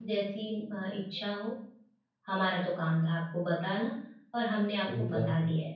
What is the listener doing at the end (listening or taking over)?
listening